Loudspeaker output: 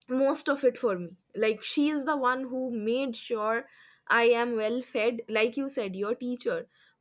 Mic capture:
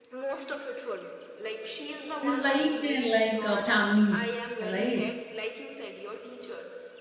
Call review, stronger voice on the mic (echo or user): user